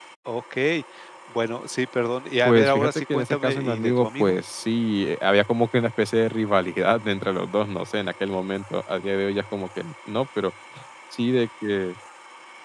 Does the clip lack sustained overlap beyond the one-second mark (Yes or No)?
No